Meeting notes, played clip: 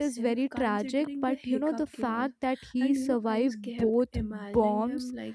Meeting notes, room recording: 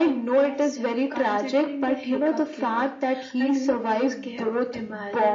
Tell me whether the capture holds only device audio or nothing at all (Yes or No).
Yes